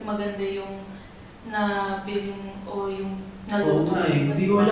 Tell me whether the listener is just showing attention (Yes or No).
No